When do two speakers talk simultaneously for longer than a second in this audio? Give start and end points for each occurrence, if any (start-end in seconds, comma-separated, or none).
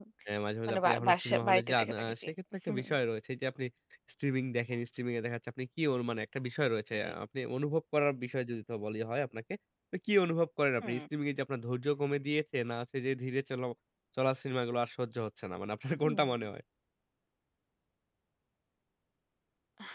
0.7-2.3